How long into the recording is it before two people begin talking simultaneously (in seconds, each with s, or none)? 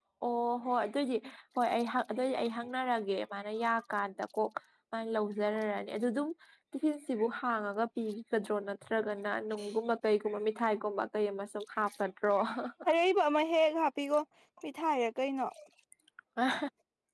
none